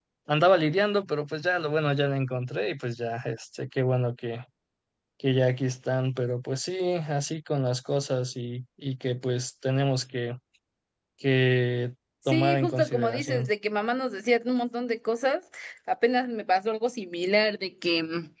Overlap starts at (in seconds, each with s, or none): 12.3 s